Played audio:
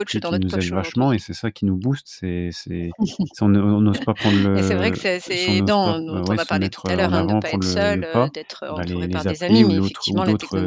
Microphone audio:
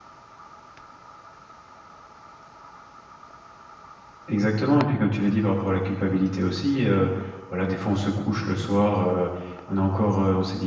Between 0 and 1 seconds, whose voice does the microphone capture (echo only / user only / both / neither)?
neither